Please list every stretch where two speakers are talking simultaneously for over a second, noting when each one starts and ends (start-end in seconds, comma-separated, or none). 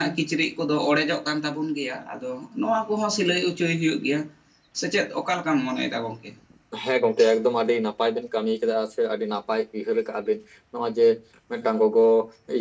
none